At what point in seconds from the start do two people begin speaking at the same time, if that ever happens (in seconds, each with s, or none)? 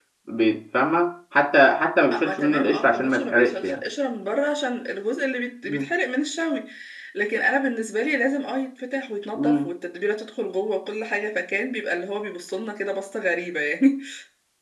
2.1 s